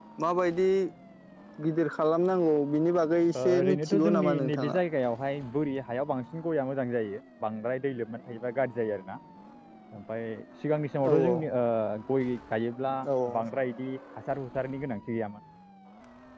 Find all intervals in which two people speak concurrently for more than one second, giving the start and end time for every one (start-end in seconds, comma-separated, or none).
3.4-4.8